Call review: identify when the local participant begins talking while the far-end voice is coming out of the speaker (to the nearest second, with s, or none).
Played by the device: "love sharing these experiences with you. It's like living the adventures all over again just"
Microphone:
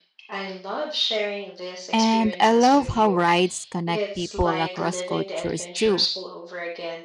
2 s